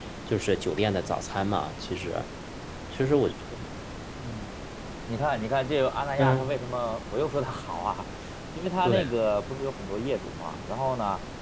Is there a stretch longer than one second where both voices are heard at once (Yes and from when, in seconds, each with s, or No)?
No